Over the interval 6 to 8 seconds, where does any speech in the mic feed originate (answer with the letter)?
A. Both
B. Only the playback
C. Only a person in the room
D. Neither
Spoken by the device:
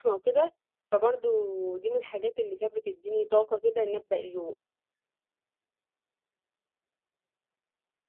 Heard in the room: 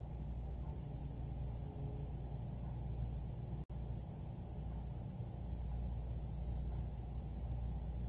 D